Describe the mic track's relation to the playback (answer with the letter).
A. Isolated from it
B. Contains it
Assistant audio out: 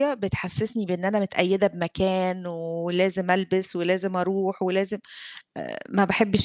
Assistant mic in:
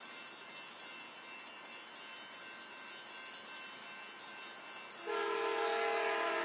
A